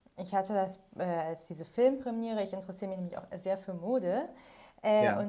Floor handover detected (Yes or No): No